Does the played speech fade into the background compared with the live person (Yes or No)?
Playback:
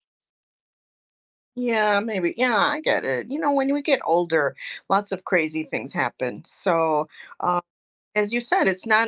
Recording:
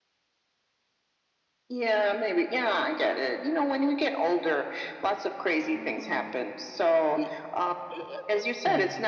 No